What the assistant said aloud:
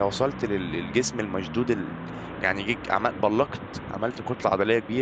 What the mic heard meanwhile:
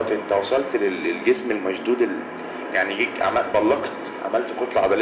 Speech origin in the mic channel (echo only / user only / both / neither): echo only